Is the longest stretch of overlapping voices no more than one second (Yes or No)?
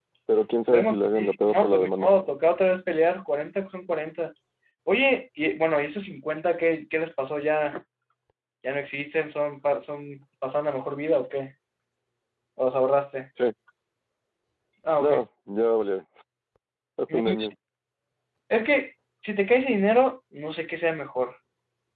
No